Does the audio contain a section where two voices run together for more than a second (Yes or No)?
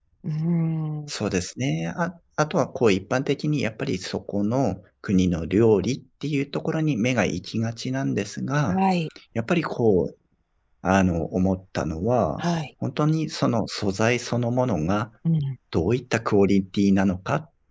No